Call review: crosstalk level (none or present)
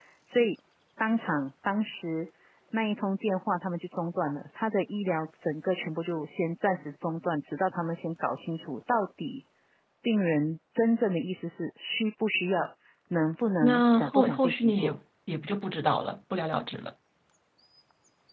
present